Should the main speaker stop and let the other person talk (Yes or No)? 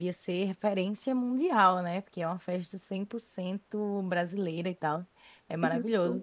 No